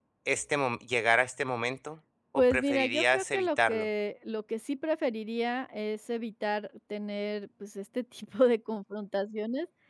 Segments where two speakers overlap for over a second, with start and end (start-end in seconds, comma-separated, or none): 2.4-3.9